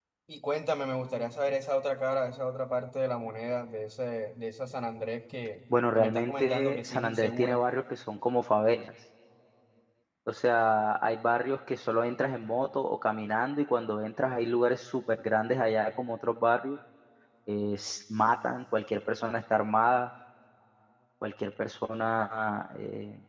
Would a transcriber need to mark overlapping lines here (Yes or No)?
Yes